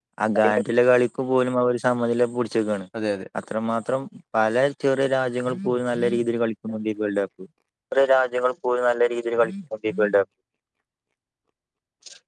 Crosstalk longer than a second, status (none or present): none